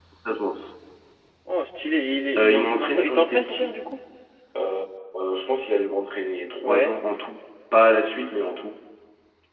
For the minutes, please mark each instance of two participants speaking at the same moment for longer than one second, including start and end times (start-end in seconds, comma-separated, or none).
2.4-3.8